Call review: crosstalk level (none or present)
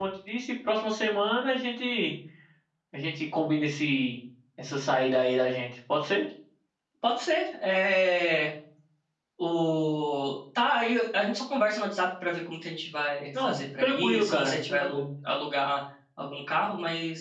present